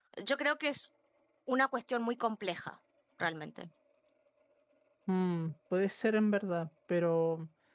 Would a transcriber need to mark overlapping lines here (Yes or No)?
No